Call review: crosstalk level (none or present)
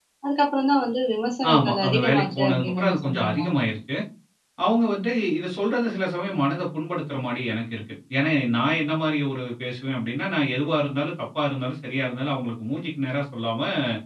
present